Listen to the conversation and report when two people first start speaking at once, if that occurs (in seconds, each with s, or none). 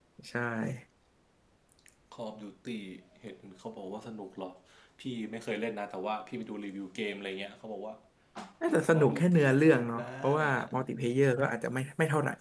8.9 s